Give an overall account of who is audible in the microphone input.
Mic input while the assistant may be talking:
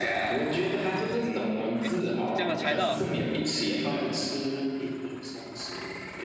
both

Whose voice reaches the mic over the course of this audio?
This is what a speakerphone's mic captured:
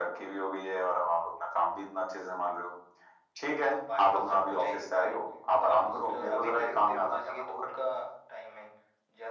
echo only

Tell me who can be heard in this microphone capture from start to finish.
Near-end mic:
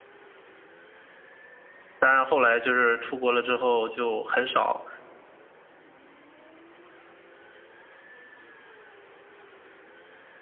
user only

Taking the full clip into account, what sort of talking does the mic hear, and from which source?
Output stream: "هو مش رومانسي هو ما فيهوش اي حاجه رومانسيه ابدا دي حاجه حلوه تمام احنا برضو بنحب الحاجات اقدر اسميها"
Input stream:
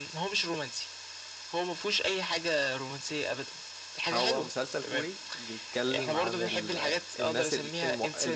both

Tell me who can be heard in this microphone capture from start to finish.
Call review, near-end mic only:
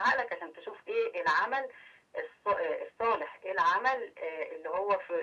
echo only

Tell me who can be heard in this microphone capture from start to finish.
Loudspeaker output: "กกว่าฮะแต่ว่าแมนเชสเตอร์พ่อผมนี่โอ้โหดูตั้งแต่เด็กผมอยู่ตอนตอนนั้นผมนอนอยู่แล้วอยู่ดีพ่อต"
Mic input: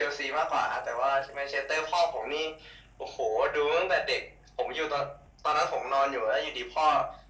echo only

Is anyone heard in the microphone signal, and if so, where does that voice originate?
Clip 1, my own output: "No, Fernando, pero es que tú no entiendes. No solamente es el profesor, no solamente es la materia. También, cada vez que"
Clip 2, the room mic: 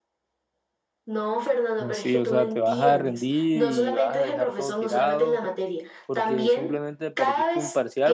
both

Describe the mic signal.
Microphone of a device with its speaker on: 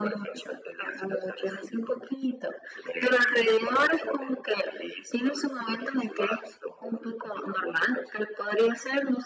echo only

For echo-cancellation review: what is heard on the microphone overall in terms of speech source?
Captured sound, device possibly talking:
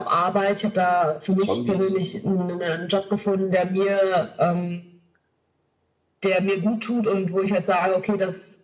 both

